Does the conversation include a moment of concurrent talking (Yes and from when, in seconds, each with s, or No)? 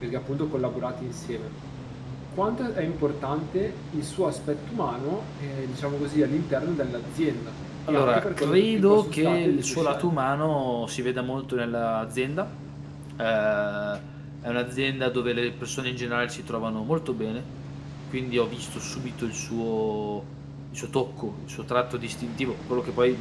Yes, from 7.9 s